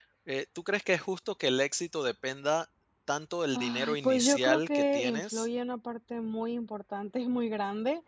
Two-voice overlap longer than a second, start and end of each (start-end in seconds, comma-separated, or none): 3.5-5.5